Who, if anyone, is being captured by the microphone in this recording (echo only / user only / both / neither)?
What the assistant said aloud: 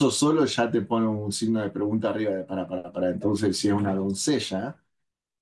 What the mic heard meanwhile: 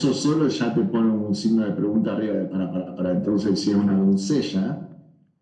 echo only